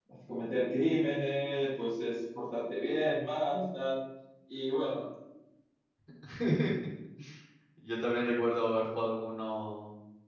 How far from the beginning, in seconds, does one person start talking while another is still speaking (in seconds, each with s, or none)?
none